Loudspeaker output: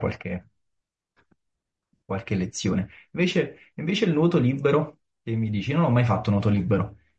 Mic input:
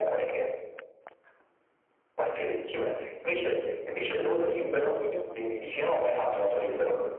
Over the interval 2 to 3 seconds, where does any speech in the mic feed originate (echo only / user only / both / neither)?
echo only